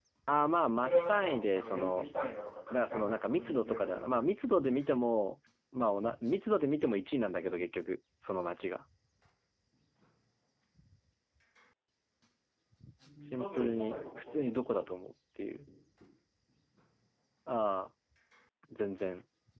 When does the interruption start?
0.8 s

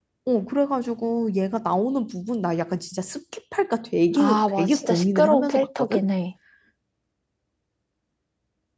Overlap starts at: 4.2 s

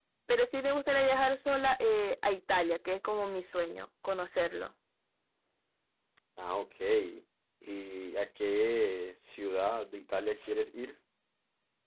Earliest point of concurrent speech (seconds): none

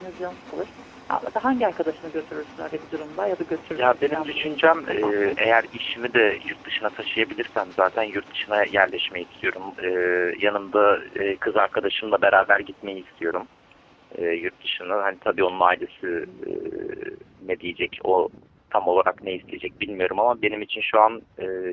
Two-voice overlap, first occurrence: 3.8 s

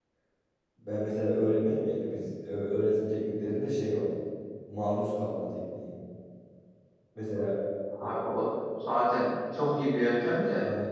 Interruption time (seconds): none

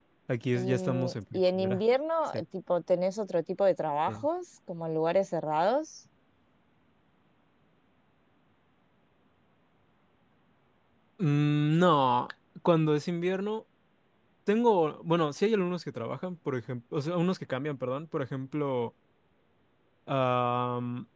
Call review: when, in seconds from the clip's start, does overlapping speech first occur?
0.6 s

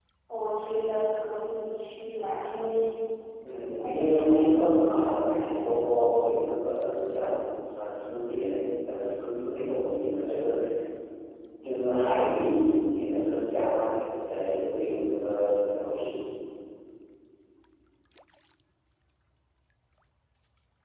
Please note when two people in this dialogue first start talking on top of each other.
3.8 s

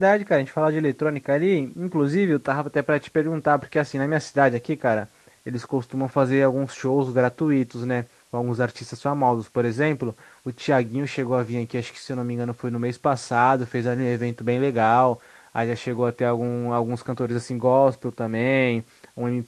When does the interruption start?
none

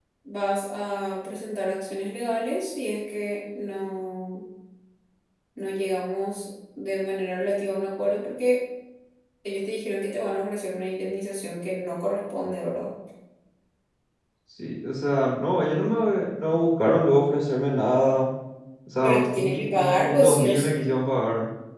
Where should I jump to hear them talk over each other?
19.0 s

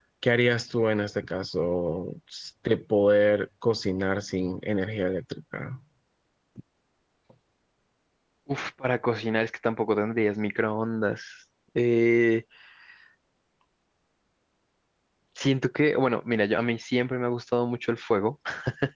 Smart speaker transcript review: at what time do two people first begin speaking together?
none

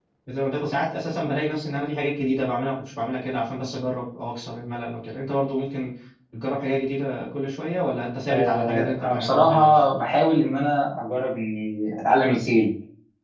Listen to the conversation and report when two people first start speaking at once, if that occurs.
8.3 s

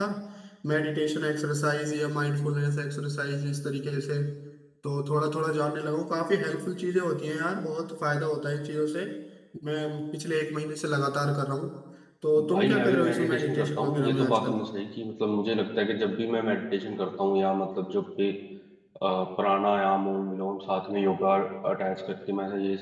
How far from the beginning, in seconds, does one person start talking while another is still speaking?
12.5 s

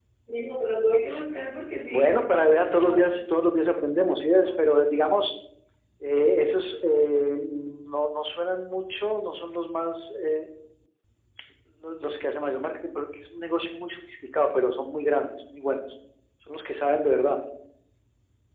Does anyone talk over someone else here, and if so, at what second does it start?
1.9 s

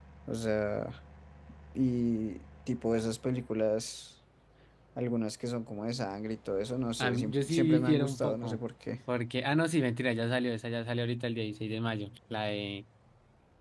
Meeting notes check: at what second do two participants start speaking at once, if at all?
7.0 s

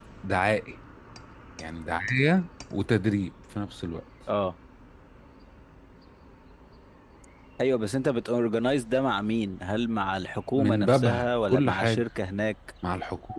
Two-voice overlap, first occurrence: 10.6 s

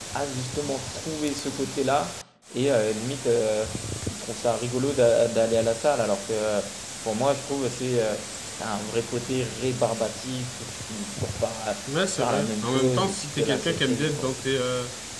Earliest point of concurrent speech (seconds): 12.2 s

